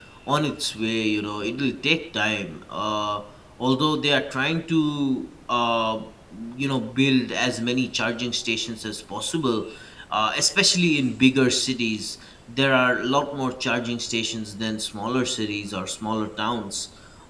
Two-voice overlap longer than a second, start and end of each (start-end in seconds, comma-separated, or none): none